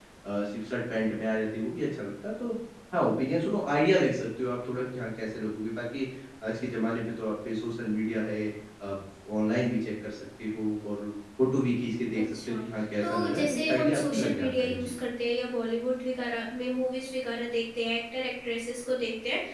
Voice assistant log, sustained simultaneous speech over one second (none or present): present